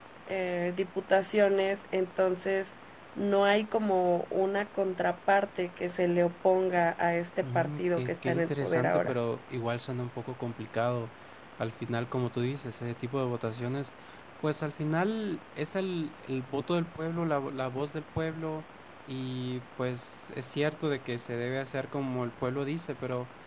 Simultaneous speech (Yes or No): Yes